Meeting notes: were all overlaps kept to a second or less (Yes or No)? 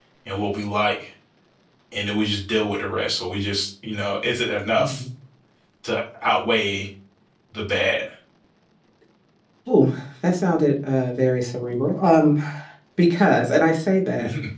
Yes